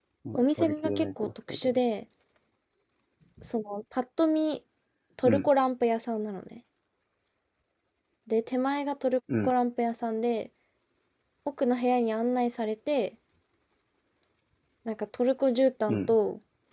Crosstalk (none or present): present